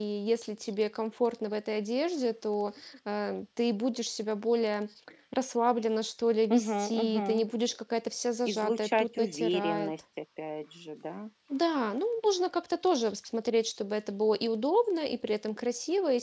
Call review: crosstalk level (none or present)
present